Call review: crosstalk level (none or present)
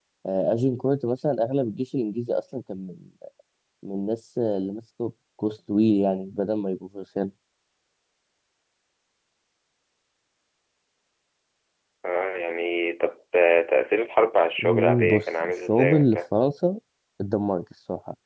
present